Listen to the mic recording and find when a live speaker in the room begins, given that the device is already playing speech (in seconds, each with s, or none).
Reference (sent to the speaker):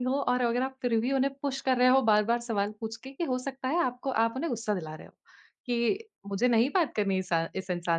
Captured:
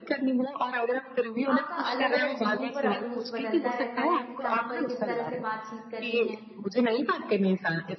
1.5 s